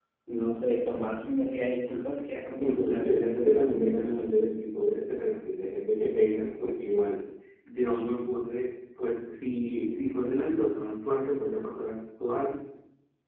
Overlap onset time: 2.5 s

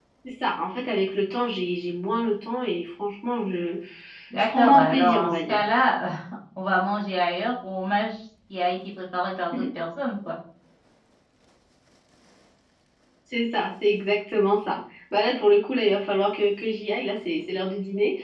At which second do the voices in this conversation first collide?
4.4 s

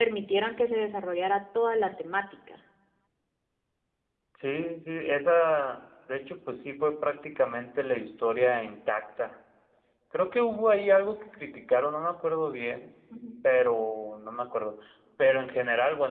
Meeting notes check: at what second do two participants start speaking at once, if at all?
none

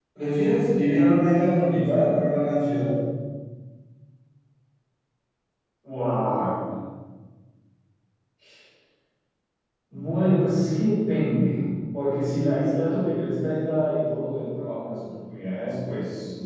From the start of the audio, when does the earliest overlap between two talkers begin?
none

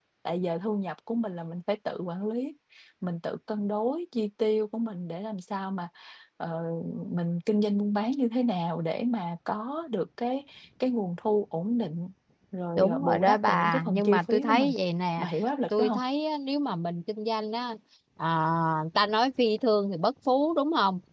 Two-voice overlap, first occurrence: 12.8 s

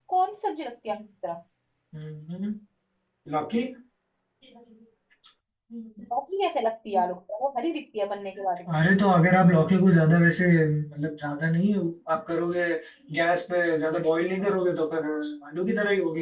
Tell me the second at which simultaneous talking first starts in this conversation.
none

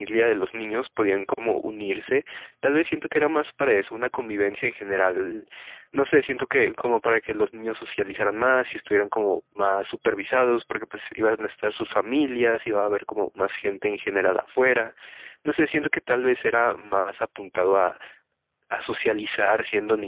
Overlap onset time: none

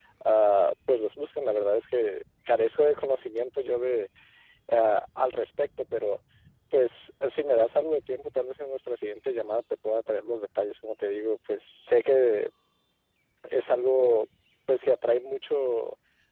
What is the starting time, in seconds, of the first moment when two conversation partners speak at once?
none

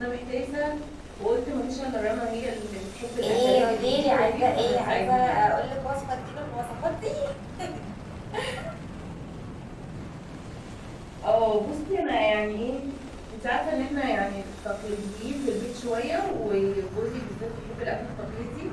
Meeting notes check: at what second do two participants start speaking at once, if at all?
3.2 s

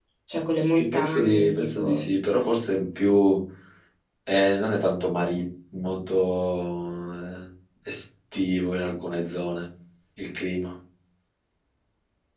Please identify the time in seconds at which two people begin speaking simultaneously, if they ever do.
0.6 s

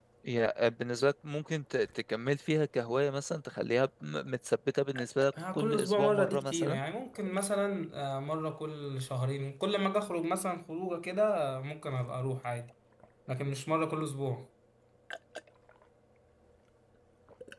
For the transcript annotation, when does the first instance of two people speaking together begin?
5.4 s

